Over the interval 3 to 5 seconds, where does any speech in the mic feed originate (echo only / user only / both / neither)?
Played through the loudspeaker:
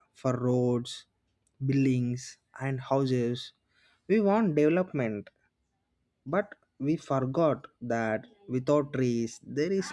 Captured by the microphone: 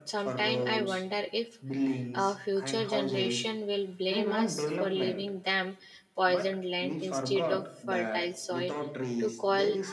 both